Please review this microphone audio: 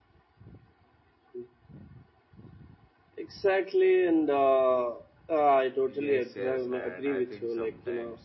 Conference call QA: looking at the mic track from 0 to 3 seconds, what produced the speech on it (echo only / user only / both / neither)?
neither